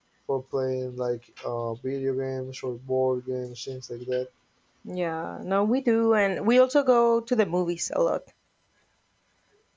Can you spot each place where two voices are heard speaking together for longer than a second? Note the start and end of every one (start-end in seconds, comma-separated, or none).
none